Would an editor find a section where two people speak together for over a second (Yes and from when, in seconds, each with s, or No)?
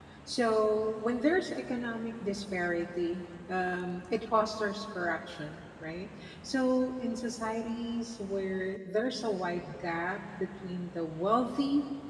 No